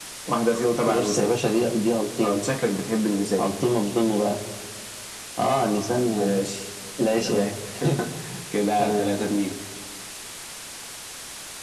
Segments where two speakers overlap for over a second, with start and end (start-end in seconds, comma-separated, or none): none